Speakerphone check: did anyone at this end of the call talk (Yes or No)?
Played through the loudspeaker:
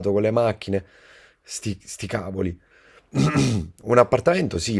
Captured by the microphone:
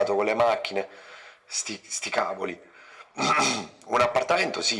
No